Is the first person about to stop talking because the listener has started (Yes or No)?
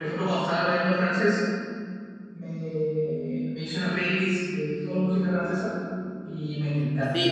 Yes